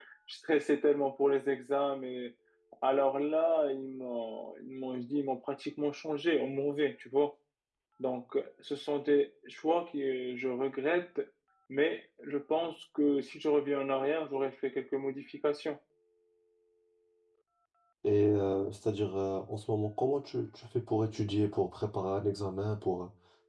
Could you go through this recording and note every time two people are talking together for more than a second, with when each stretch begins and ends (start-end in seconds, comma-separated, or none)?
none